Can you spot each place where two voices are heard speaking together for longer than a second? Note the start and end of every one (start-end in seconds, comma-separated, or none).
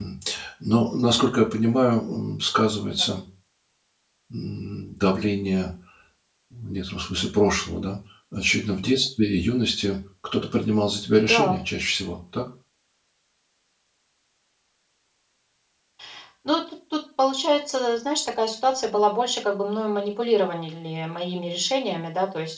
none